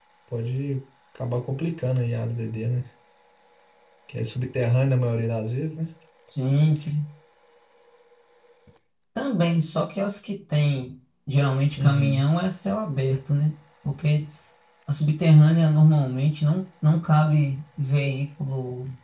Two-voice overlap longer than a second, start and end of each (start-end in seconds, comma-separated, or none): none